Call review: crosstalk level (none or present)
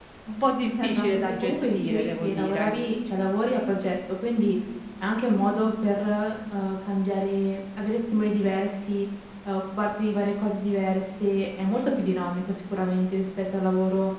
present